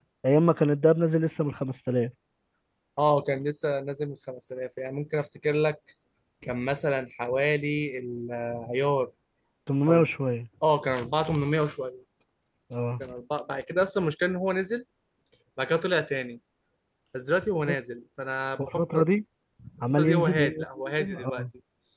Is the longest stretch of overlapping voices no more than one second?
No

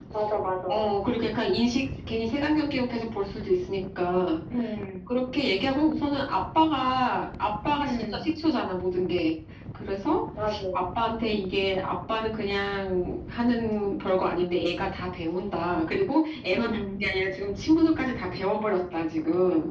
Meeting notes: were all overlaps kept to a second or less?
Yes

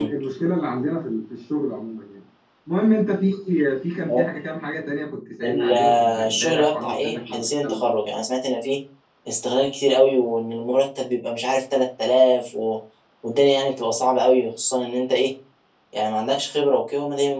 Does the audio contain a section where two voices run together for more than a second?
Yes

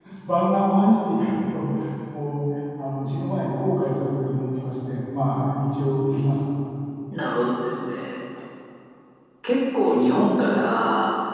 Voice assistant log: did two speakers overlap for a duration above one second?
No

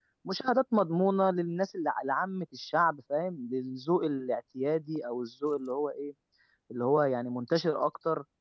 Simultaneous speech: No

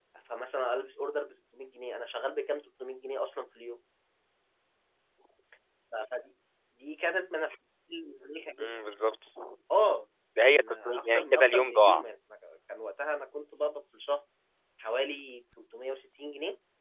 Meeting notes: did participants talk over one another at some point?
Yes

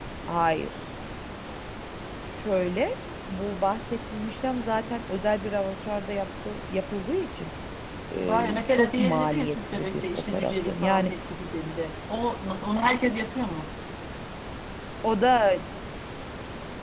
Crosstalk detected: Yes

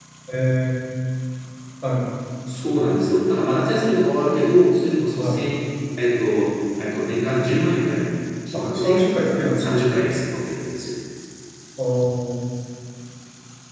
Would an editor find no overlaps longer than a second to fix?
Yes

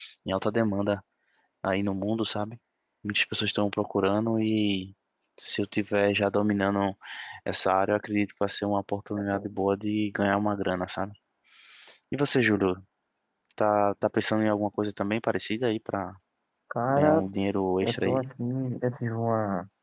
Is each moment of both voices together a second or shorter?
Yes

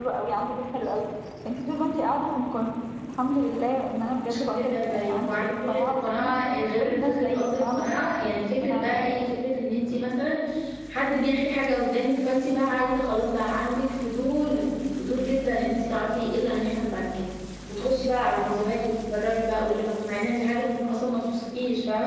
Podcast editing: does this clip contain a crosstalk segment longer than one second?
Yes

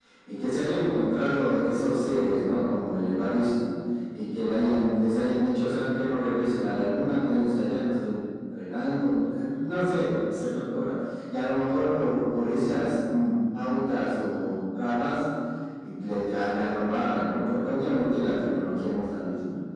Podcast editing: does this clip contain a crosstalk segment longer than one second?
No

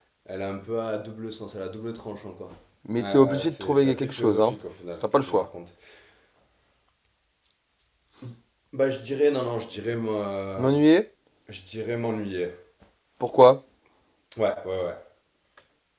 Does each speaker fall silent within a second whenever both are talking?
No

